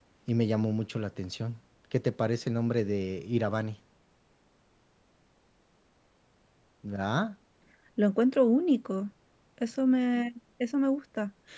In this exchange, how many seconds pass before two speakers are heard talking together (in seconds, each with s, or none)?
none